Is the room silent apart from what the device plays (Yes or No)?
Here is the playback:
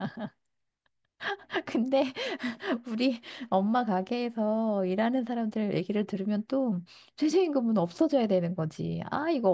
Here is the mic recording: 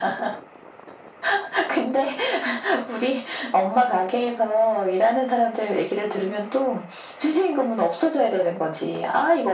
Yes